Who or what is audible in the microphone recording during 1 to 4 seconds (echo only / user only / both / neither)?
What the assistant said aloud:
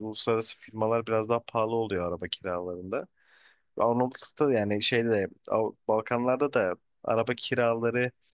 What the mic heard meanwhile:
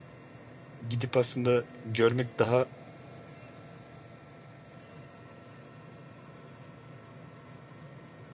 user only